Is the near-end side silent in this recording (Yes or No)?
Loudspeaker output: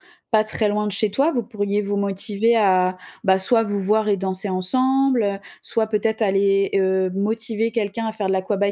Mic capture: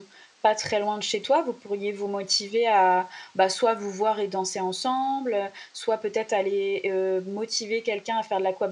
Yes